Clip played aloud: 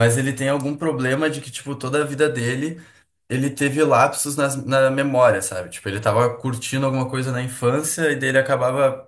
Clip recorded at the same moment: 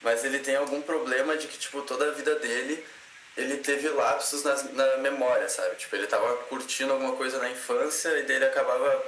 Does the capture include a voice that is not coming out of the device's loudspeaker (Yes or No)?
No